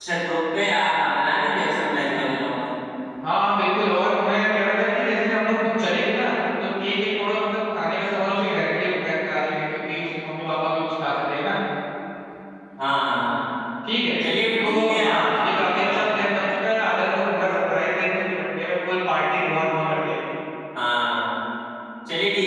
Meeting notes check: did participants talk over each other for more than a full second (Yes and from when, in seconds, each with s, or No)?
Yes, from 14.6 s